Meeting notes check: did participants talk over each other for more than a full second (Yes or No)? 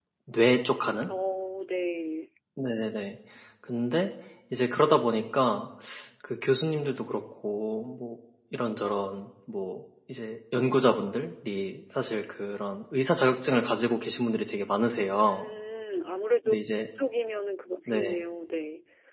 No